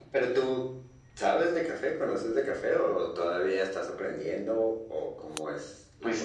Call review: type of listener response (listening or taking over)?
taking over